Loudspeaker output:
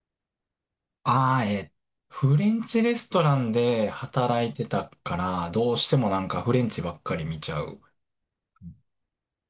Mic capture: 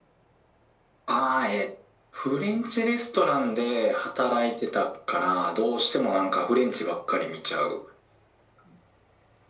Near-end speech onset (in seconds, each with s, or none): none